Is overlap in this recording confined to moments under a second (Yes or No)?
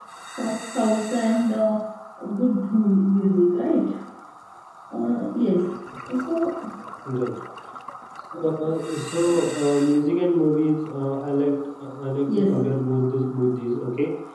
Yes